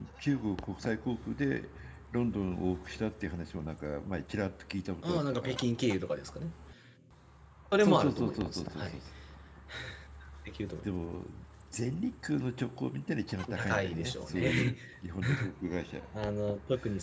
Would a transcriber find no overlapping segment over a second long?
No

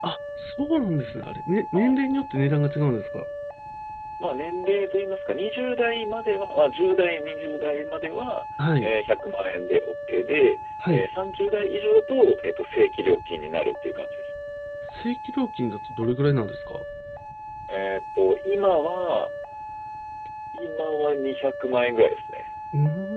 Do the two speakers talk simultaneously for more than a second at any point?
No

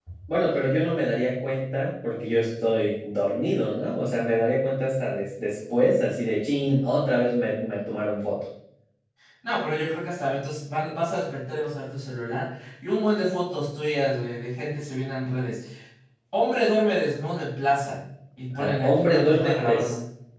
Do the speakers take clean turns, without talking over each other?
No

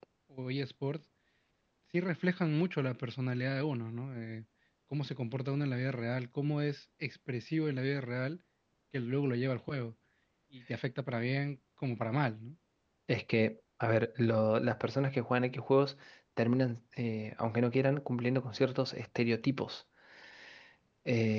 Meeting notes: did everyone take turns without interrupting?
Yes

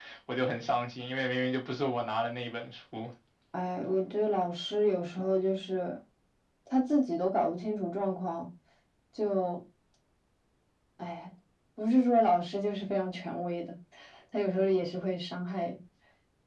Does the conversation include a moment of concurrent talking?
No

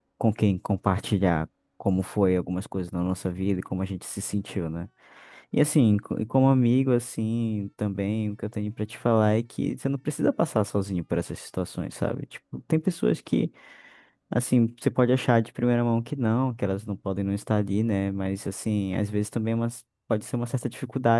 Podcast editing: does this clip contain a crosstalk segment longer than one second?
No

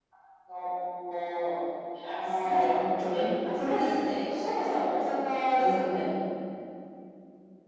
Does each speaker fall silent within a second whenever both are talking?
Yes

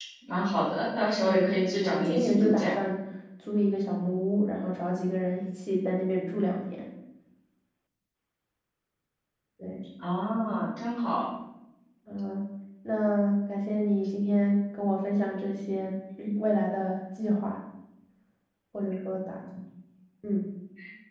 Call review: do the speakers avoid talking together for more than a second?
No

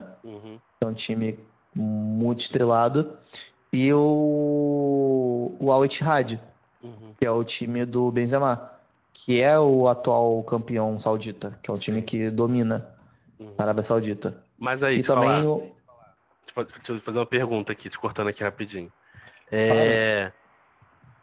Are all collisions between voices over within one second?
Yes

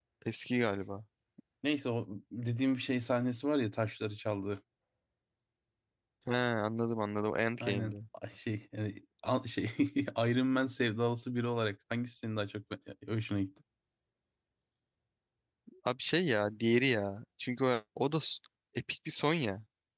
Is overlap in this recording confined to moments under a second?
Yes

